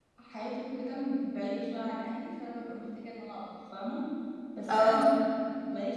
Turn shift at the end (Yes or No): No